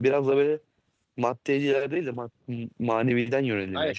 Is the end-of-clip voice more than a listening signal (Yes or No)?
Yes